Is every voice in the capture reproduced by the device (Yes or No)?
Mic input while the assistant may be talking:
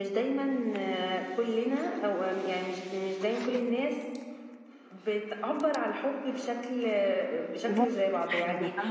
No